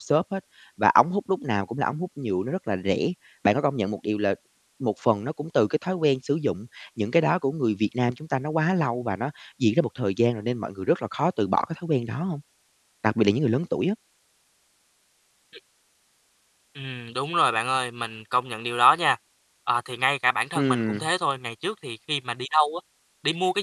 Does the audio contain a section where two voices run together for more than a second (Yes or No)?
No